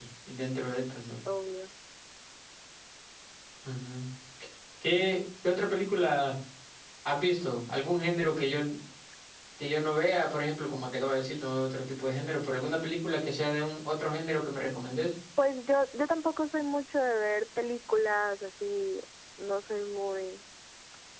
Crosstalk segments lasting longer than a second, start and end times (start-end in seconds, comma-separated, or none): none